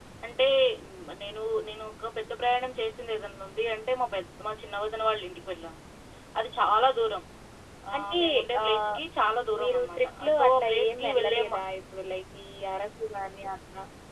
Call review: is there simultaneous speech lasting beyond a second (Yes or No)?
Yes